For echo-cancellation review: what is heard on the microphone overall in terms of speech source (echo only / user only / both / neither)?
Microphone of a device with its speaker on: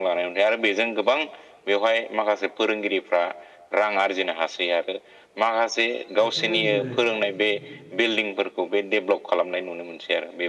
both